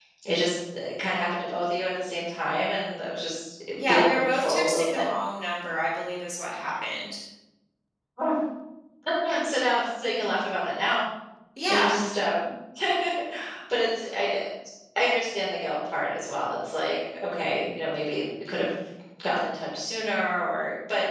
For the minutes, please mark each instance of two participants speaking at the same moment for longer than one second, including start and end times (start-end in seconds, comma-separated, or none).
3.8-5.0